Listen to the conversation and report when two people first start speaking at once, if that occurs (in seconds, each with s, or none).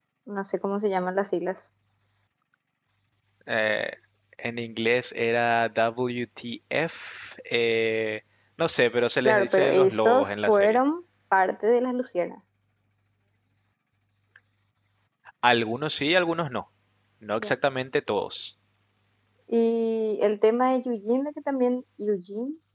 9.2 s